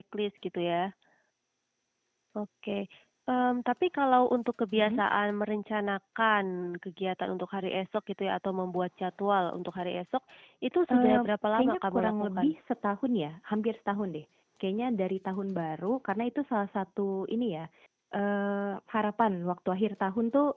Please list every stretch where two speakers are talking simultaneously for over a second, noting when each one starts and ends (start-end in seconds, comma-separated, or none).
10.9-12.5